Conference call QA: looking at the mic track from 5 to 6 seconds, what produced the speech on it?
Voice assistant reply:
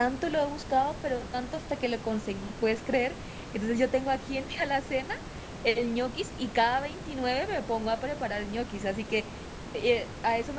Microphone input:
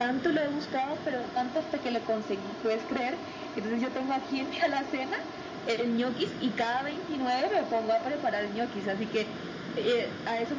echo only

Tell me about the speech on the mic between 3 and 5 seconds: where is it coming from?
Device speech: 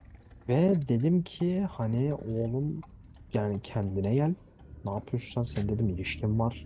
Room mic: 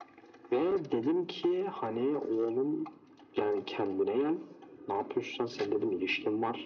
echo only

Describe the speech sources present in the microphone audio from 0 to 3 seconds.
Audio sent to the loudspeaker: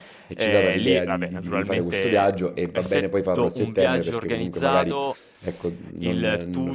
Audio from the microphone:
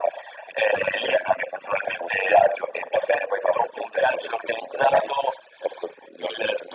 echo only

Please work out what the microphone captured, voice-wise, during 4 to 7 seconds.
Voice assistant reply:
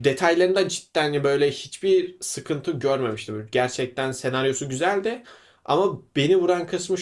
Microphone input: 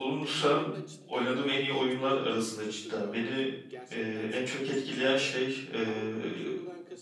both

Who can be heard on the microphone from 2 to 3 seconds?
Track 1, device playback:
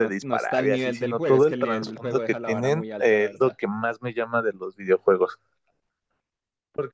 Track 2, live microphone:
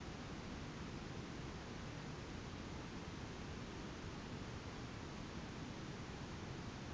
neither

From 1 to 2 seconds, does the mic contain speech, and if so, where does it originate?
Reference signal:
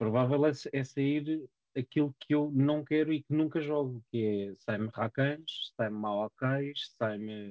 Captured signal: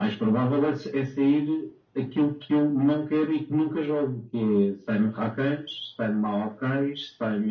echo only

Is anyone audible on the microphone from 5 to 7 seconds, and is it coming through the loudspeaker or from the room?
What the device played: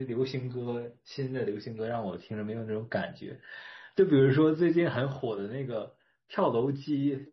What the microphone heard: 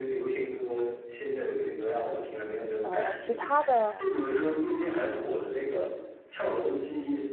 echo only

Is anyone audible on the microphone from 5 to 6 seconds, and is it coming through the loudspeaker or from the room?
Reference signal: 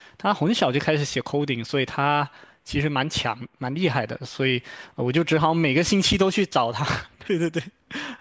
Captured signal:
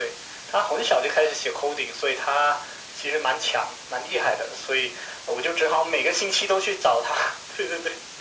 echo only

